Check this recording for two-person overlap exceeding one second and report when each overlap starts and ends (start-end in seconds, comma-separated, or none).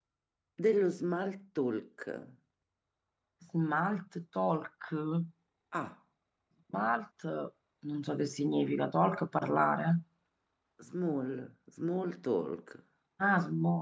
none